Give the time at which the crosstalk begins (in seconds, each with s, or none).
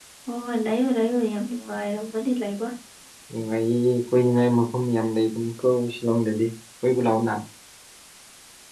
none